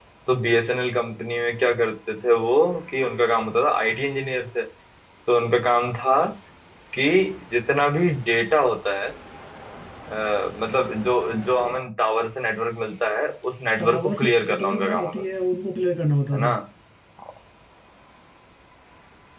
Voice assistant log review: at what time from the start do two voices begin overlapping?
13.8 s

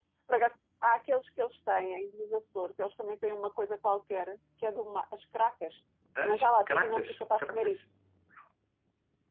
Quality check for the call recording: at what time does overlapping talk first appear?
6.2 s

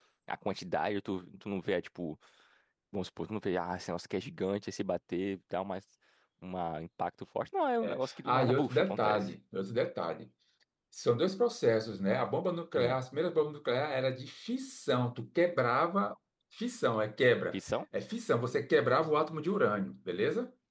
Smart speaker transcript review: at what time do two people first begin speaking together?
7.8 s

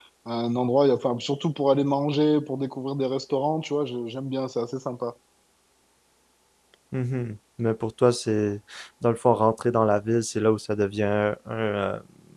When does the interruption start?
none

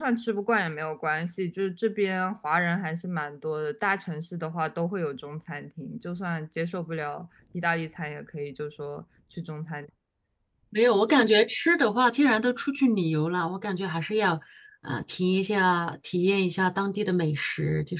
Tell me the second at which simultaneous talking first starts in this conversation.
none

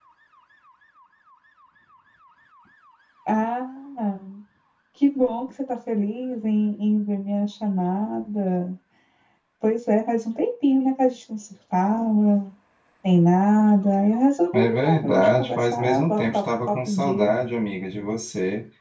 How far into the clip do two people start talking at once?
14.5 s

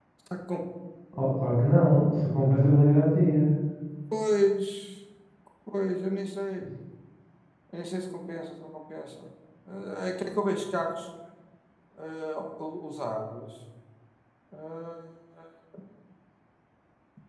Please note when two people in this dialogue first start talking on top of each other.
none

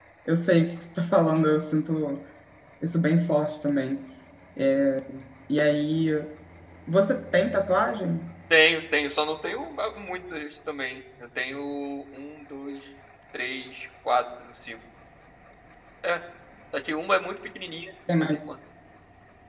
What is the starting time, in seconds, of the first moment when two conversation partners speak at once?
none

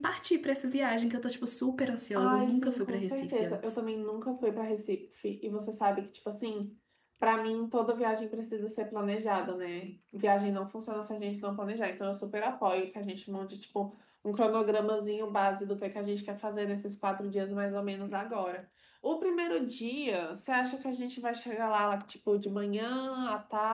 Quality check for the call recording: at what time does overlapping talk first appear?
2.1 s

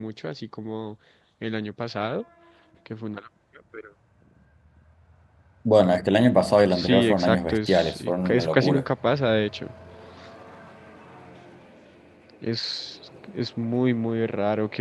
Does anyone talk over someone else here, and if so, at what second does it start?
6.7 s

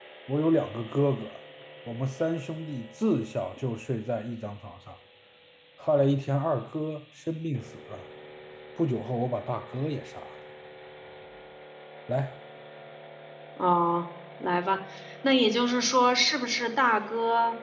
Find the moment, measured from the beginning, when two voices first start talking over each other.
none

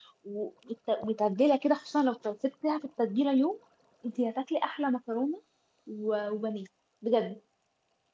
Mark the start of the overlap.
none

